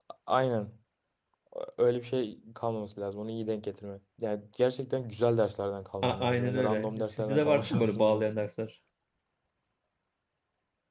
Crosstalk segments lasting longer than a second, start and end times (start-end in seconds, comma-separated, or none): 6.0-8.3